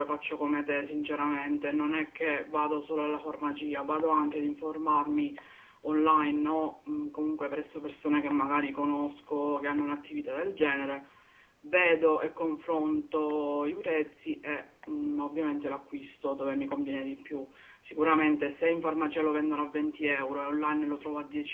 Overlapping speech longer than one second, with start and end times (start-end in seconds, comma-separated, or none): none